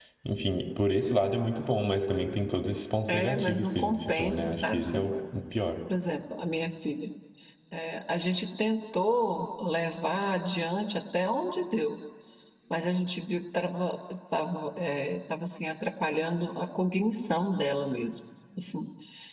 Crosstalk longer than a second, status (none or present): present